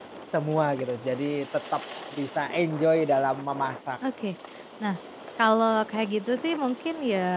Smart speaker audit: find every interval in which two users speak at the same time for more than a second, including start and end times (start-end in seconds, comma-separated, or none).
none